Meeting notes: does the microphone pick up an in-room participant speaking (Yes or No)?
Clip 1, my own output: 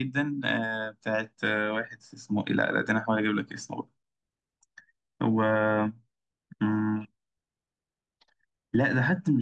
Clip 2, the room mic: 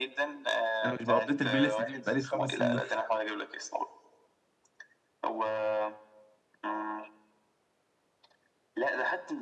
Yes